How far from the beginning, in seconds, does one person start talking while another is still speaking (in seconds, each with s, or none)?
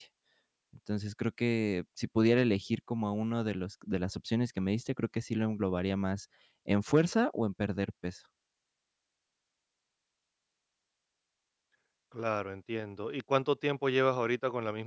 none